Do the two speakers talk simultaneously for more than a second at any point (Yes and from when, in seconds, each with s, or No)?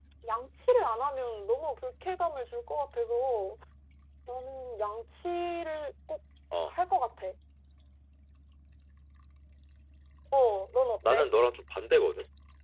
No